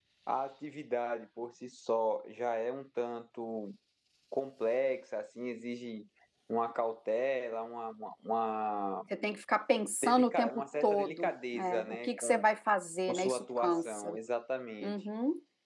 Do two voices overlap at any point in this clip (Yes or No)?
Yes